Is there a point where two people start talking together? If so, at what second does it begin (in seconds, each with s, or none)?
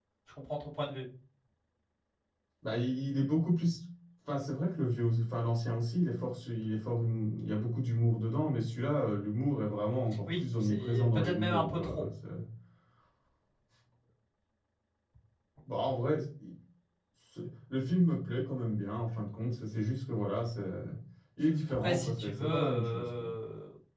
10.2 s